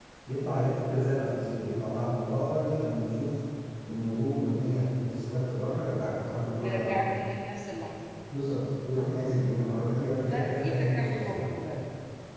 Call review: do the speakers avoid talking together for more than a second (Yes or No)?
No